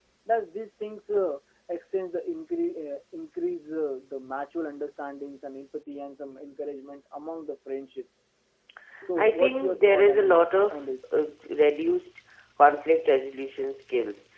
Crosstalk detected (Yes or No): Yes